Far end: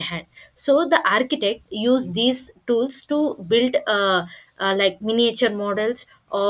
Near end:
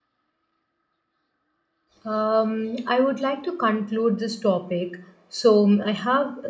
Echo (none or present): none